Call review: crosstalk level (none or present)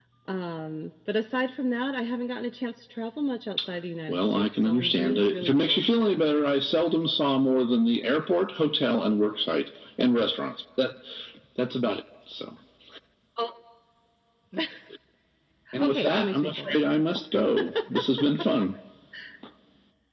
present